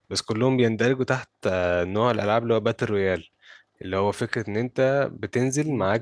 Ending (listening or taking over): listening